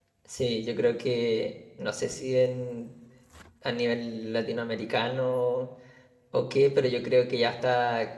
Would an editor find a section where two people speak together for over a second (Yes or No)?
No